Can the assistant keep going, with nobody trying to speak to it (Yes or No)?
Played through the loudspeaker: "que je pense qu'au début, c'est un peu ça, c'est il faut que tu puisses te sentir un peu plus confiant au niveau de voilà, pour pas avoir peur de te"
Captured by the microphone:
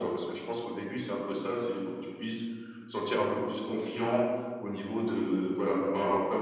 Yes